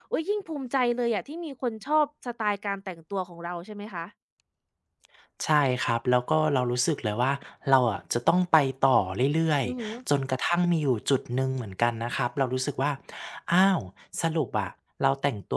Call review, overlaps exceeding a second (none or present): none